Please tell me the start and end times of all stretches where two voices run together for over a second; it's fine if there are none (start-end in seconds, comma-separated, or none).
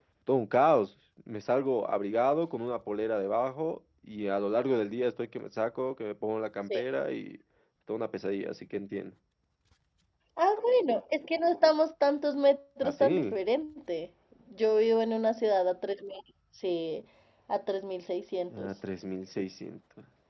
none